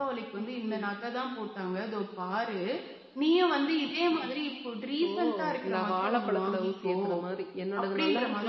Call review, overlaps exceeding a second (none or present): present